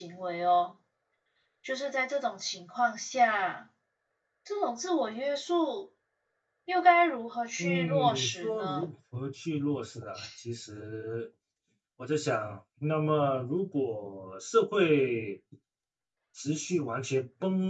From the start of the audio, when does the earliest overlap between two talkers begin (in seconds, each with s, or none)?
7.6 s